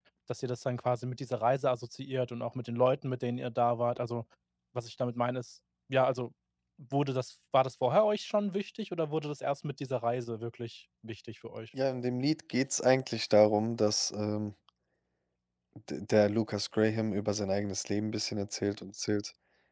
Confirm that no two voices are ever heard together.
Yes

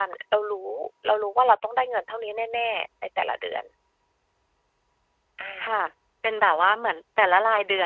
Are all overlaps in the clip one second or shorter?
Yes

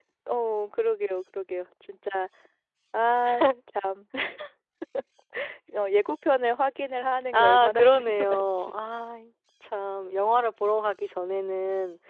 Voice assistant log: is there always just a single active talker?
No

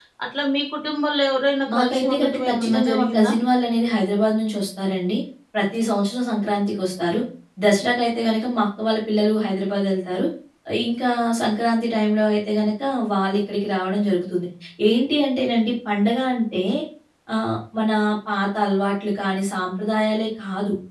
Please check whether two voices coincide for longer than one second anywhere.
Yes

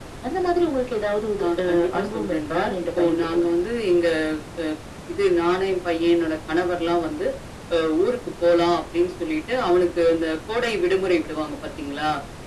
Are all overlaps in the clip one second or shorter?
No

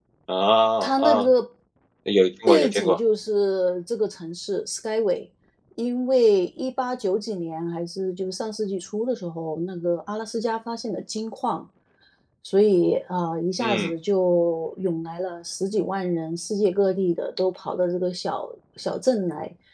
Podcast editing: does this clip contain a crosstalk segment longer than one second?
No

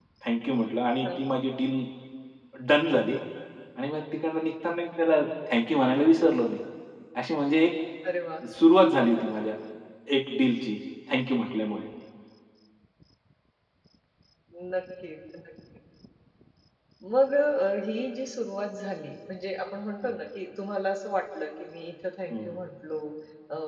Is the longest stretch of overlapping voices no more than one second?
Yes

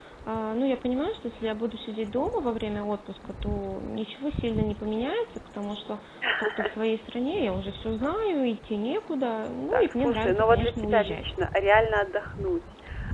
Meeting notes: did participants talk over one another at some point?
Yes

